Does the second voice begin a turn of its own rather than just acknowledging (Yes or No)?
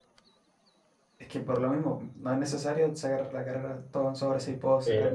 Yes